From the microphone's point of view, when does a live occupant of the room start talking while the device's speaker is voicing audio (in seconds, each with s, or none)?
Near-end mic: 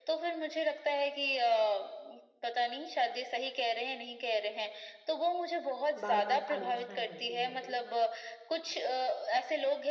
6.0 s